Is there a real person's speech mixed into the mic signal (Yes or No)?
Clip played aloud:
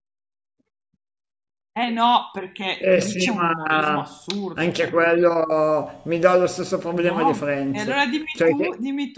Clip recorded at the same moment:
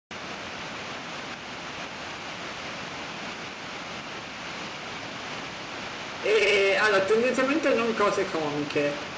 Yes